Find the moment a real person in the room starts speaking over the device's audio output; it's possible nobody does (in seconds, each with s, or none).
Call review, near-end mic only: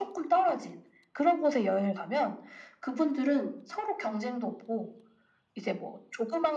none